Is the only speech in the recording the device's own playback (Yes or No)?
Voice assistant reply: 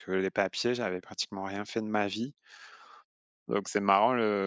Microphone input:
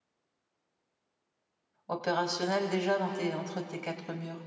No